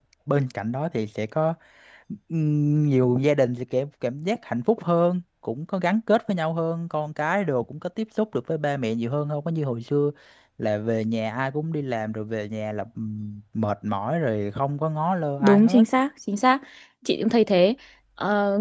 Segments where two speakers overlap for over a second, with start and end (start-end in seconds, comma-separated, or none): none